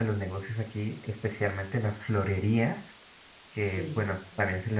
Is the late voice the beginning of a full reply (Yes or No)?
No